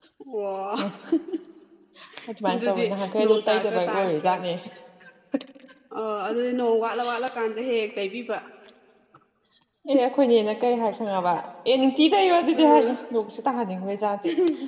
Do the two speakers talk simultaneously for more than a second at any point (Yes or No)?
Yes